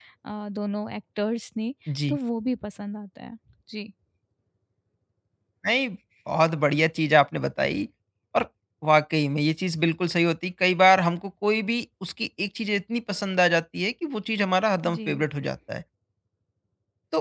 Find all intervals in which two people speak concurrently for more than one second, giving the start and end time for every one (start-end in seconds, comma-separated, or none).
none